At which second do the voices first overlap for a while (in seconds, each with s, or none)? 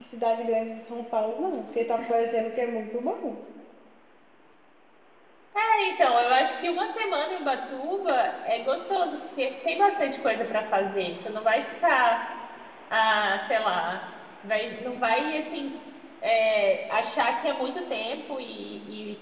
none